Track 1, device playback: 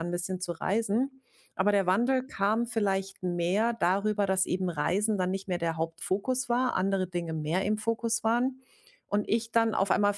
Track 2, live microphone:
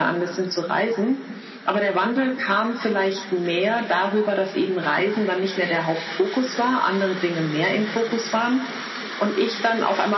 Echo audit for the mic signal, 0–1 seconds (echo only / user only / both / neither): echo only